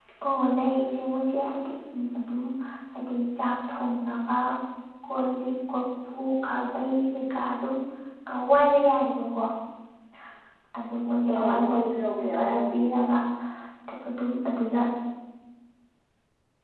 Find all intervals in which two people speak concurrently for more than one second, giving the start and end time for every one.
11.3-13.0

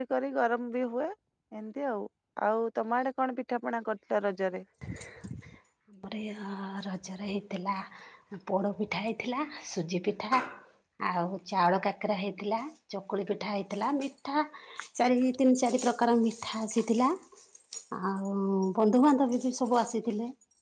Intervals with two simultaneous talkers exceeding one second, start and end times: none

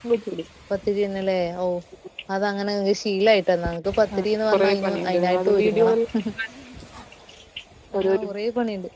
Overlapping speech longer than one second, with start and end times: 4.2-6.0

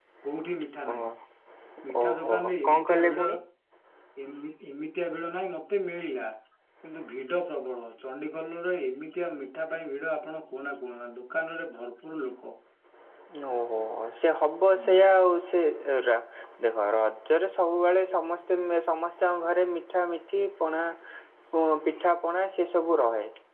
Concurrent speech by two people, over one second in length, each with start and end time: 2.0-3.3

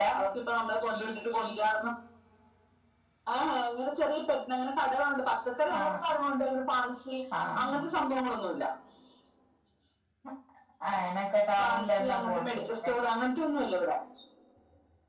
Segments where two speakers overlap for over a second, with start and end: 11.6-12.9

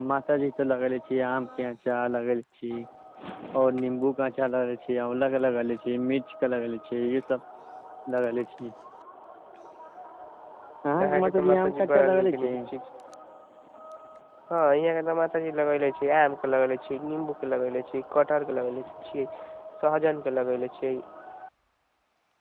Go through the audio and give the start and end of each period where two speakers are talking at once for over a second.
11.0-12.5

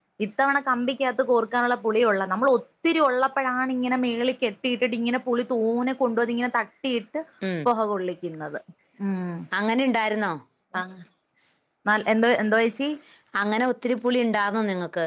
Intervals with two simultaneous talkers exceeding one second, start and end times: none

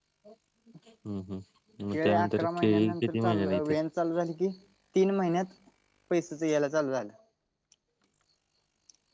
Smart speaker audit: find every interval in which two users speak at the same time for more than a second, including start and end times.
1.9-3.7

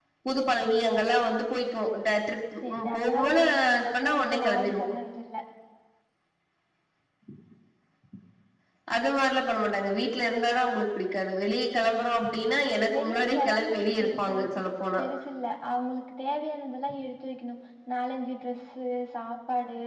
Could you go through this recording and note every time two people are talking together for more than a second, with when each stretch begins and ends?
2.7-4.8, 12.9-14.5

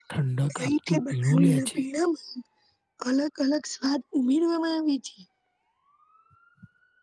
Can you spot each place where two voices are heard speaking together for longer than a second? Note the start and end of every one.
0.5-1.8

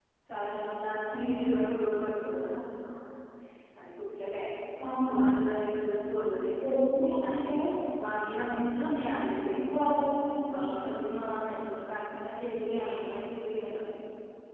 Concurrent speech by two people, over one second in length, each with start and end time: none

